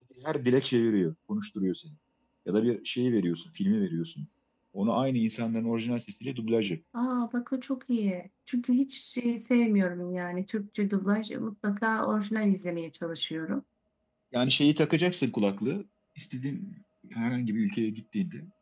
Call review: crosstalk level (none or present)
none